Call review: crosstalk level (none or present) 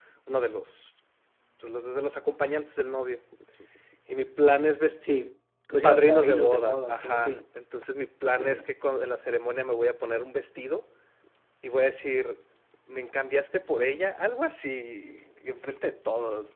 present